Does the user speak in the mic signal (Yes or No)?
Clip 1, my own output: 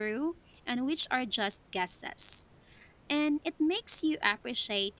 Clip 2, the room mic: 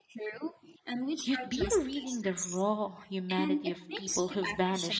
Yes